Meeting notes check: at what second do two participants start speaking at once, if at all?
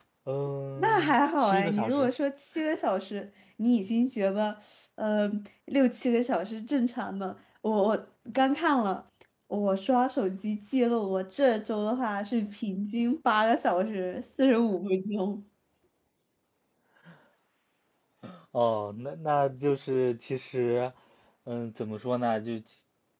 0.8 s

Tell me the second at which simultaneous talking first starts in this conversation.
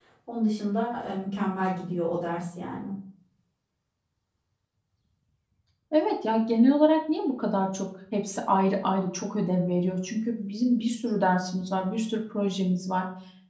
none

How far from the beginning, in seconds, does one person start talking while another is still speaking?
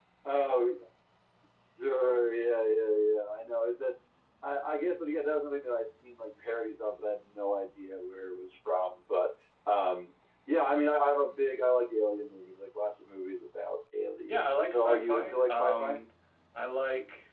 14.3 s

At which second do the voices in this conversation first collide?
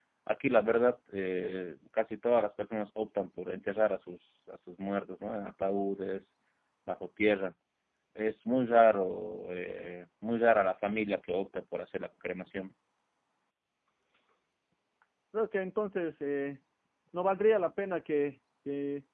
none

